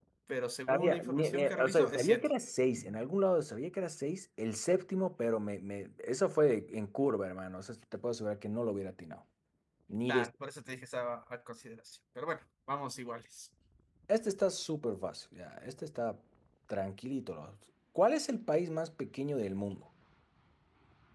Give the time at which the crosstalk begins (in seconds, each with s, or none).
0.7 s